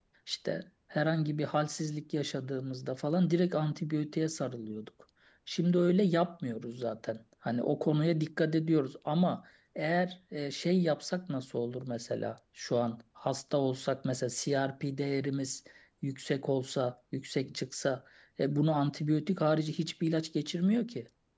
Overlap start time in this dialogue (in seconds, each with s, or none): none